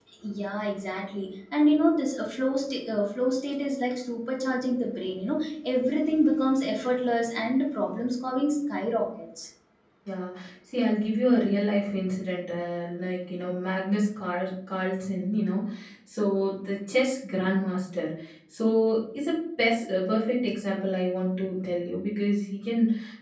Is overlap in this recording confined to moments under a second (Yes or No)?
Yes